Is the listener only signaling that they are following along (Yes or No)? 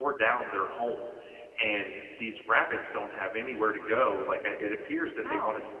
Yes